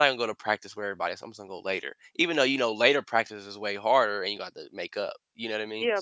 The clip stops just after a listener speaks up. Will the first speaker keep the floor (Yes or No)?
No